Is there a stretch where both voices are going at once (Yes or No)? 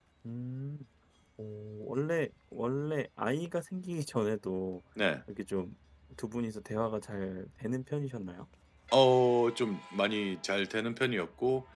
No